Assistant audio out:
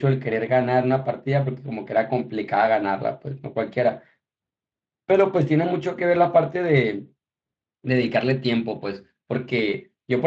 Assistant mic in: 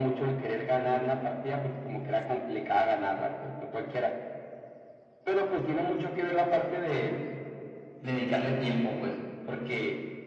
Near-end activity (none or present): none